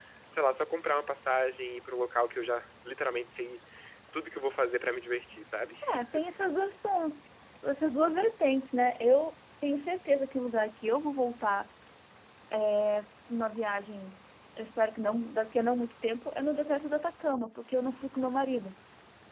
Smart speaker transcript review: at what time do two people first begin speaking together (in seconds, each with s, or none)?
none